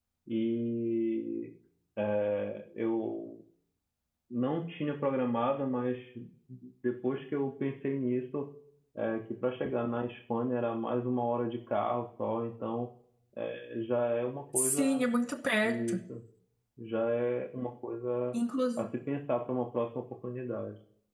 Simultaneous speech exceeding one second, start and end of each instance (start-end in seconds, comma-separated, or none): none